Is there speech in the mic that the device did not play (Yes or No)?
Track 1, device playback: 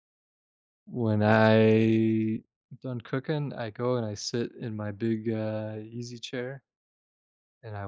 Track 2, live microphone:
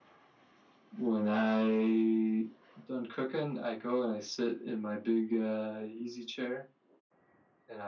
No